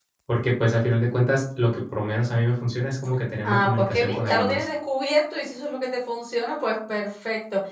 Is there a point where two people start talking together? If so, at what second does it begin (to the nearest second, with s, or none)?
3 s